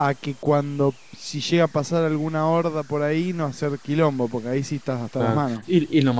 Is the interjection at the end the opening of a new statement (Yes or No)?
Yes